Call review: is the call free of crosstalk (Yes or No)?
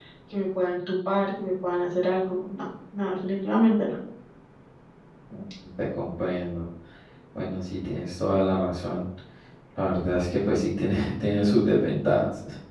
Yes